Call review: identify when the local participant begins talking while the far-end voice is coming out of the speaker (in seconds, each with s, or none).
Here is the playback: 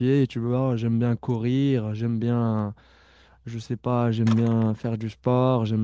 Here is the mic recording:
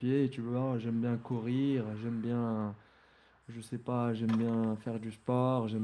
none